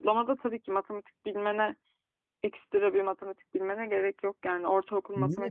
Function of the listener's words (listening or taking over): taking over